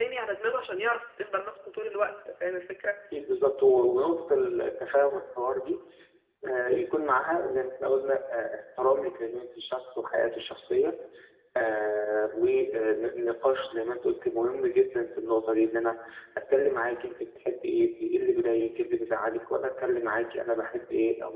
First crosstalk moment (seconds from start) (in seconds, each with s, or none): none